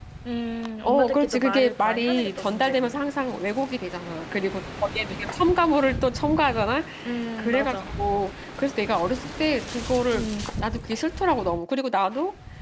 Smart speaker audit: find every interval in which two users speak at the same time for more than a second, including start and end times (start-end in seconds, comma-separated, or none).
0.9-2.9